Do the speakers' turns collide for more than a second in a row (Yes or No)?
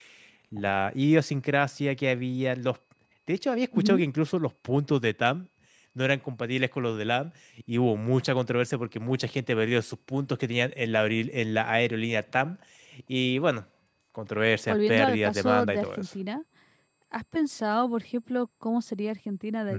Yes